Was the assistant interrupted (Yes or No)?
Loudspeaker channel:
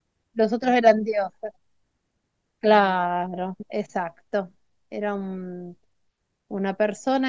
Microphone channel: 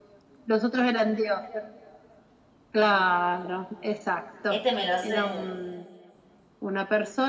Yes